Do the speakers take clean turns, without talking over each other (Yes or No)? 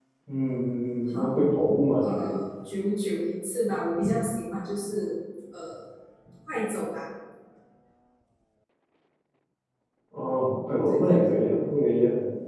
No